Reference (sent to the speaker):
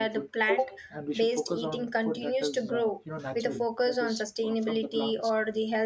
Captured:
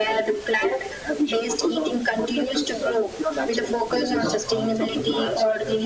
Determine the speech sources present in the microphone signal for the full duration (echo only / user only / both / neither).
both